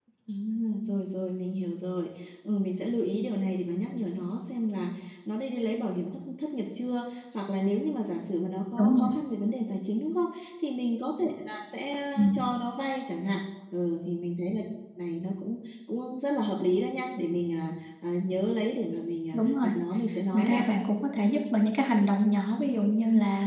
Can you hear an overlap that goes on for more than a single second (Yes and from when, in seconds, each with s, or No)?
No